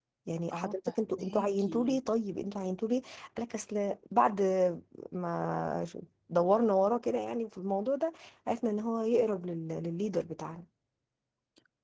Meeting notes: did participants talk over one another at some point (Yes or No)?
Yes